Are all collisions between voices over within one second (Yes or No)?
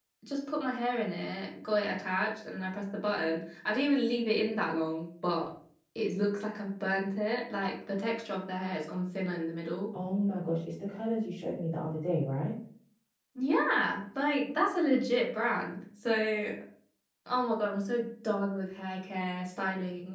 Yes